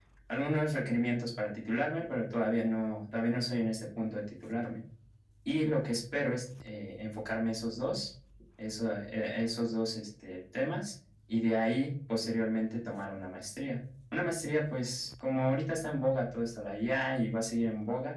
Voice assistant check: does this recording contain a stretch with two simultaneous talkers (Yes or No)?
No